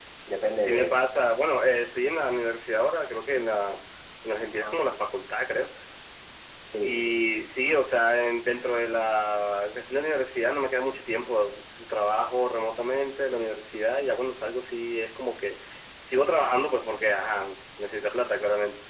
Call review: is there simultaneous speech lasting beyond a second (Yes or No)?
No